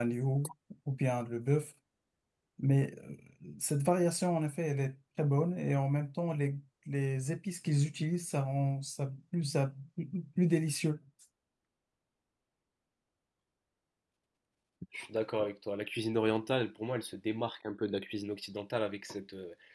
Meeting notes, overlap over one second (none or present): none